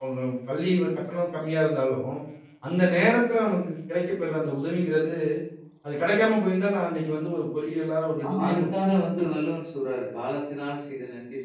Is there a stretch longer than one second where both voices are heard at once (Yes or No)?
No